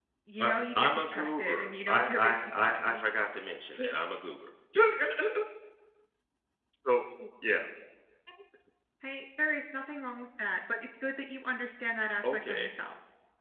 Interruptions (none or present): present